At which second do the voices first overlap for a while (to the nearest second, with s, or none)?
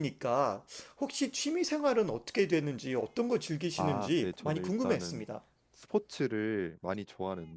4 s